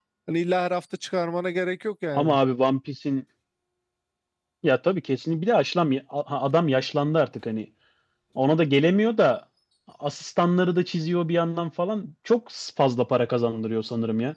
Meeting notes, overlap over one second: none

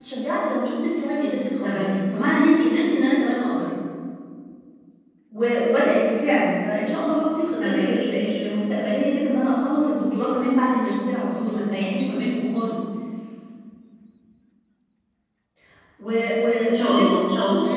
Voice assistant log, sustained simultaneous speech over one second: none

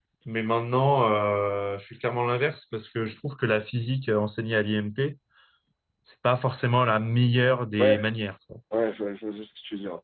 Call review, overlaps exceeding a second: none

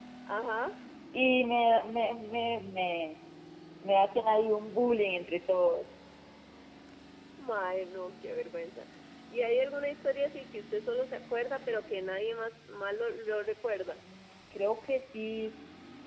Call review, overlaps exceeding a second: none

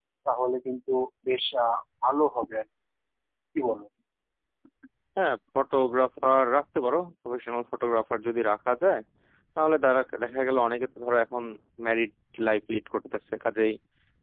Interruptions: none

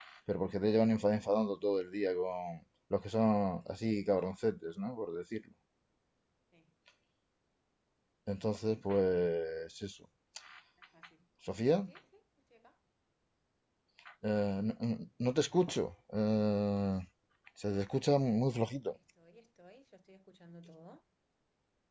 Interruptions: none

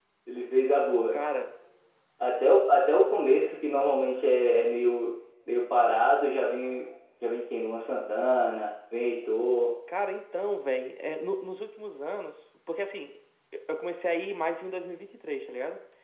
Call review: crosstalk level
none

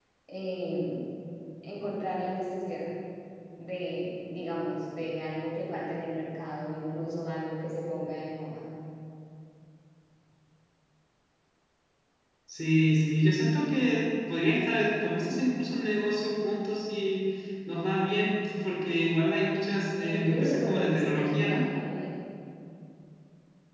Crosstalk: present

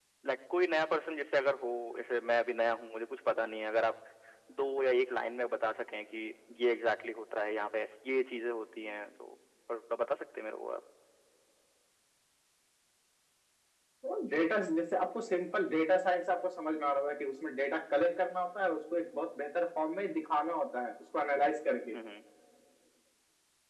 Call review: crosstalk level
none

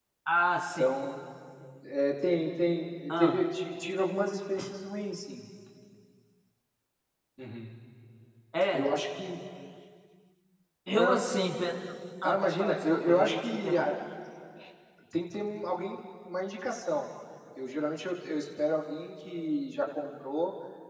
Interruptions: present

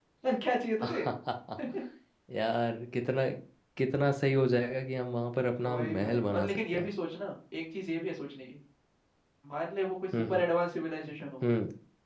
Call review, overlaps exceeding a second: present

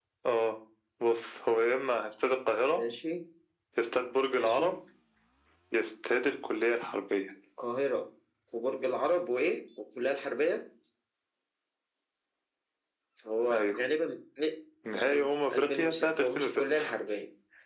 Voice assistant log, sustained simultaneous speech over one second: present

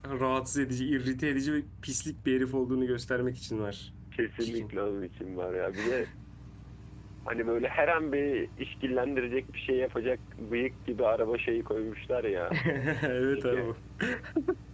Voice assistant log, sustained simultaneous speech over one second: none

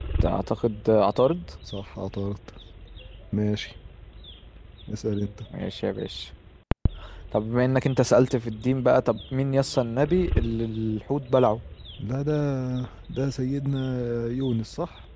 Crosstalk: none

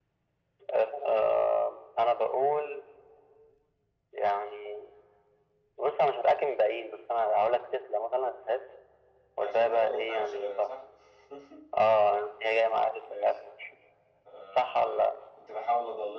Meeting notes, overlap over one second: present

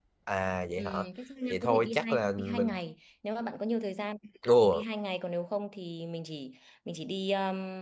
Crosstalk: present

